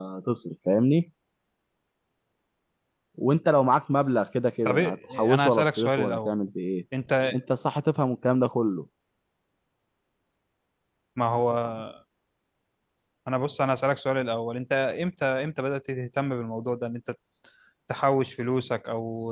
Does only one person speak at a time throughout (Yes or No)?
No